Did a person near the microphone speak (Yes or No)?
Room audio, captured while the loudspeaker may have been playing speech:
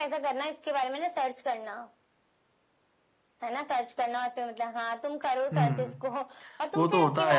Yes